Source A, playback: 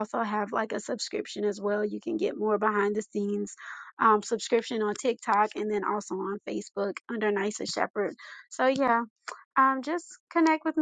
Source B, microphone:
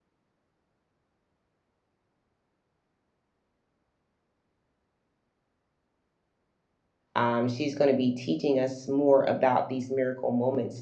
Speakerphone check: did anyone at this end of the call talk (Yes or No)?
Yes